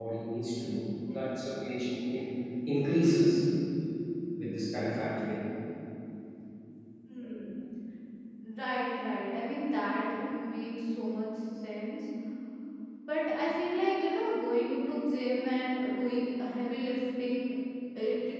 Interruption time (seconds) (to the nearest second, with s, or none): none